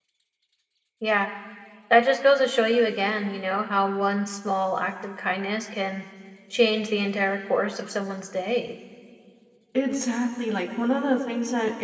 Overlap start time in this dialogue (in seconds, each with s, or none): none